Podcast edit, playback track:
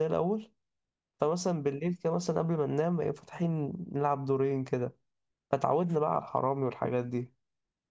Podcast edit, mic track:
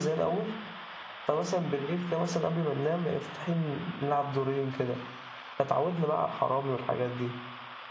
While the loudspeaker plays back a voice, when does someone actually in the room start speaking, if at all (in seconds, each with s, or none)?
none